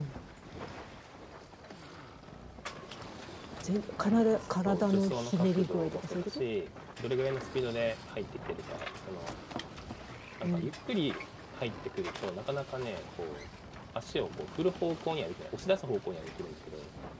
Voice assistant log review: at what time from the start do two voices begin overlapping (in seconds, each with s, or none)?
4.4 s